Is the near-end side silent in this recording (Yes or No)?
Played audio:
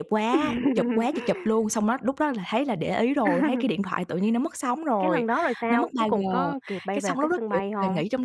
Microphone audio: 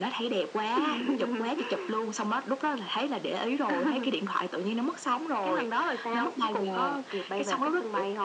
Yes